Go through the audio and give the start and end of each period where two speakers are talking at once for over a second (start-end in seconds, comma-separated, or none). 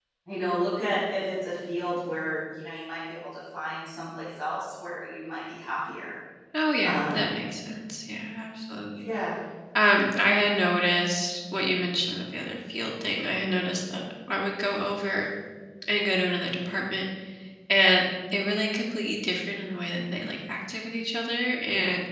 none